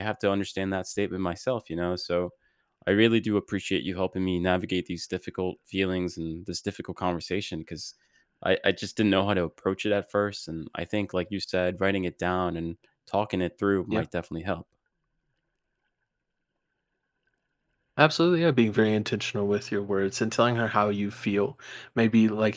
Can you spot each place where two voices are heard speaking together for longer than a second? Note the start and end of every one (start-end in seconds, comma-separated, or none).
none